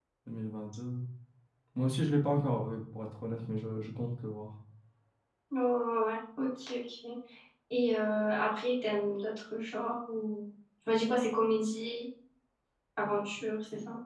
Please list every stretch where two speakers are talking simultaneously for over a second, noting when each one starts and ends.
none

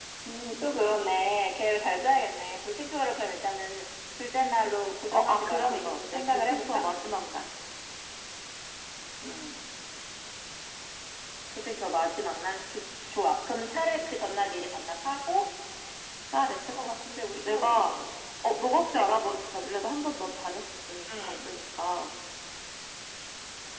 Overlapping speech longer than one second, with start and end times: 5.1-6.8

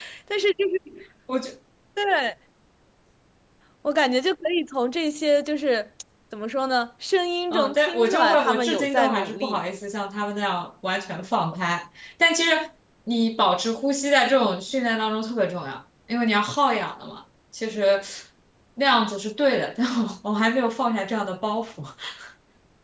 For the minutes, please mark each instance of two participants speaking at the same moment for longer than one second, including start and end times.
7.5-9.6

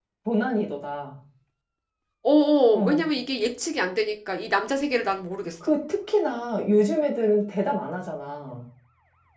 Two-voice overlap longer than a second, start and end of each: none

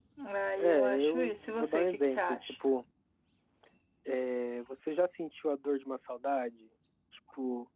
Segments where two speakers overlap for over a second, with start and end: 0.6-2.5

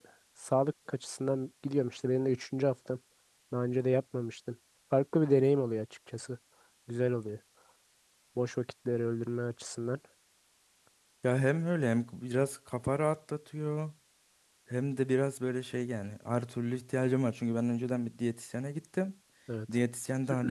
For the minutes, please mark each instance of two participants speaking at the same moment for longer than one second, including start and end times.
none

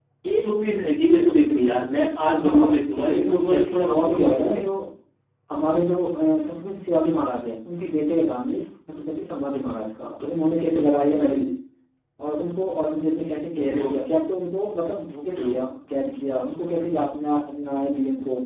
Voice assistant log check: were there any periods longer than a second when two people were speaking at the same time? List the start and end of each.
1.8-4.7

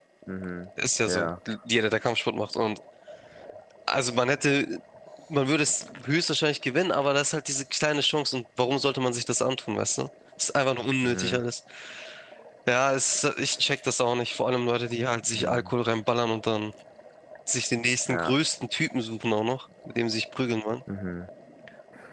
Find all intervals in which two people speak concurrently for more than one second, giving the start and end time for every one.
none

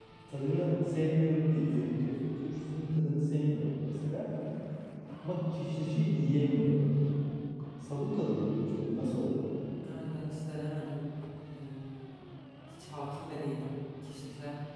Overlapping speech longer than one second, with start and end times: none

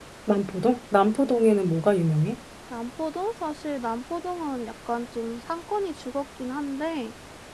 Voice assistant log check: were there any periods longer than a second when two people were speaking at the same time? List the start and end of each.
none

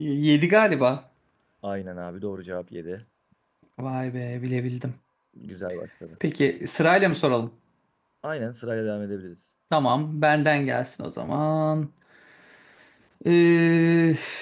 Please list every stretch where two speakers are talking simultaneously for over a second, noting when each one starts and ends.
none

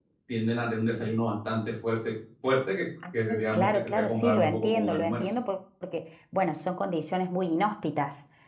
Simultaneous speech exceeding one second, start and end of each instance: 3.3-5.2

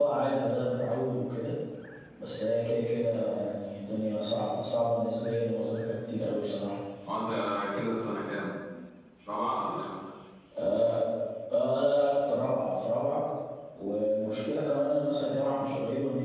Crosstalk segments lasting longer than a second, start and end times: none

